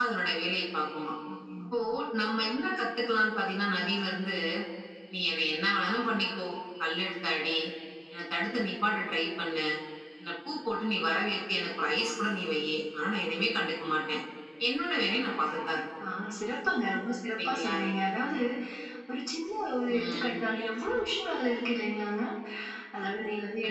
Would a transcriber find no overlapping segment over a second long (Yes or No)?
Yes